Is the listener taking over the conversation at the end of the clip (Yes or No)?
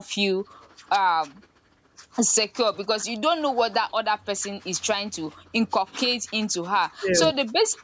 No